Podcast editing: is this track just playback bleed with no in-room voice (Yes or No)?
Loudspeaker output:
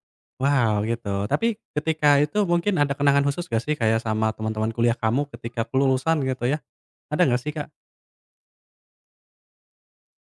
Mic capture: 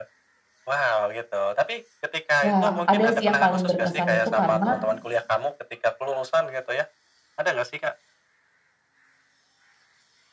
No